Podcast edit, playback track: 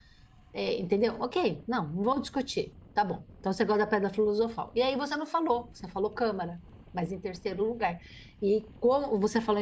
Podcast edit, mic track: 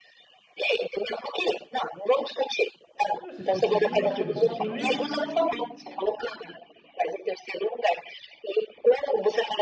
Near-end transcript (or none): Você não assistiu esse filme e você não assistiu o livro?